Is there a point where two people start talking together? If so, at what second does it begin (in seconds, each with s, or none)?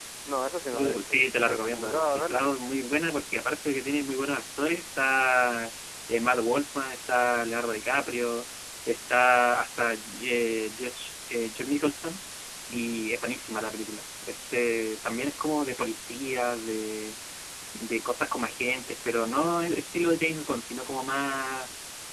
0.7 s